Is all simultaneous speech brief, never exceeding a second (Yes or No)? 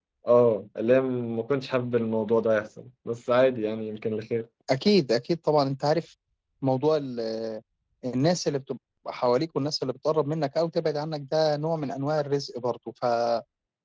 Yes